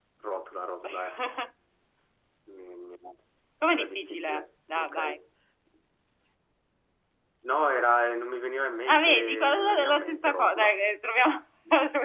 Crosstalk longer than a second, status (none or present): present